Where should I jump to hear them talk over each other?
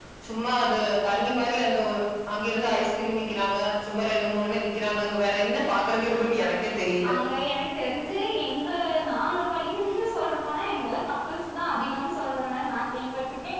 none

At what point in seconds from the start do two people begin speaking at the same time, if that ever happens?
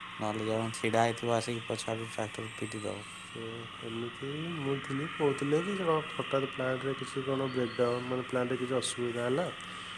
none

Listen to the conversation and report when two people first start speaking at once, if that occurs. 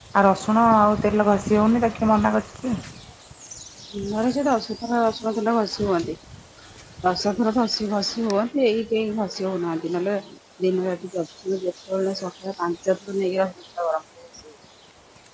none

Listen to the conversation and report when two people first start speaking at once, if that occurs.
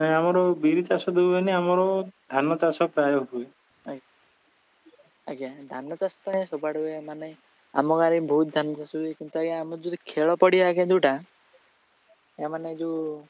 none

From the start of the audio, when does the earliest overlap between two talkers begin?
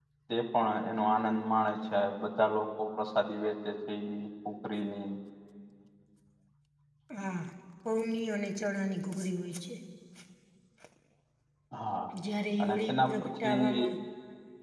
12.6 s

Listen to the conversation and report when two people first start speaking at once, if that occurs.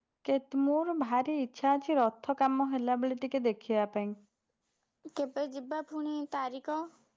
none

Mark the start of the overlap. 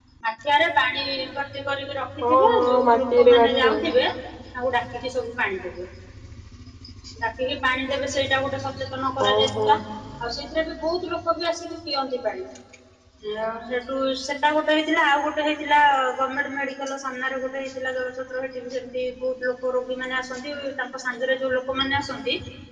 2.2 s

